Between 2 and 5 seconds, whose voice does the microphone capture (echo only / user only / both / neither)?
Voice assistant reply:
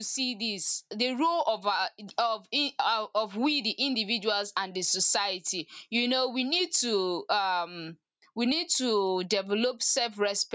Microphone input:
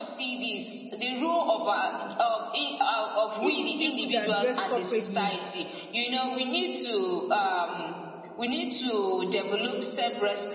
both